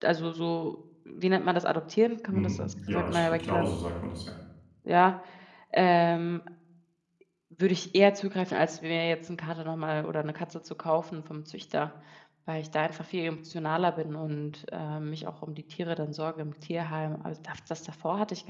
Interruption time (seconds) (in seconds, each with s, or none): 2.3 s